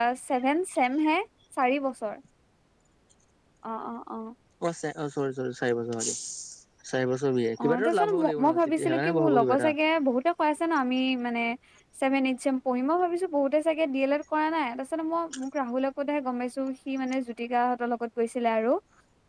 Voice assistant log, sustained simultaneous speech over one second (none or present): present